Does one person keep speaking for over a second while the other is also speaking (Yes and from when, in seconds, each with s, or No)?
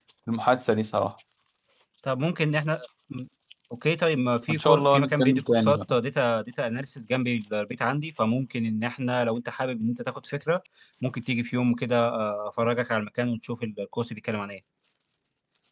Yes, from 4.5 s